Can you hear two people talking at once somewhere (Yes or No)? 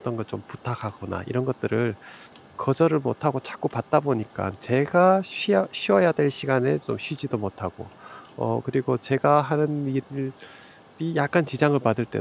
No